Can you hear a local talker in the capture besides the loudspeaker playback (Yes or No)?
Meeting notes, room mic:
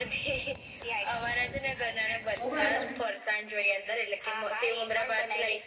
Yes